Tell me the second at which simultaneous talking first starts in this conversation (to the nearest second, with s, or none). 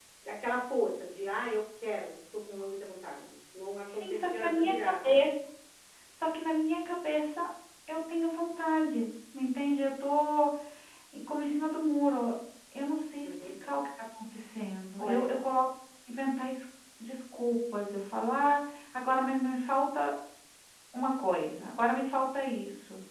4 s